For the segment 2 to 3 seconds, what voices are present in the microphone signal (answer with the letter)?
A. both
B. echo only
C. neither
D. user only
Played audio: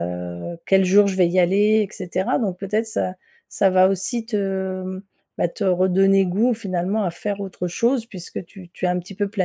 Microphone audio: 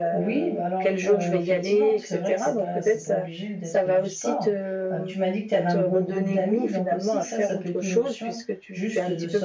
A